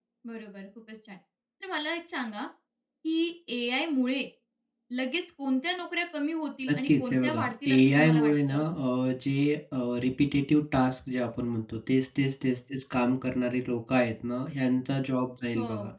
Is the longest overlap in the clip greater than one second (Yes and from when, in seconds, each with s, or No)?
Yes, from 6.7 s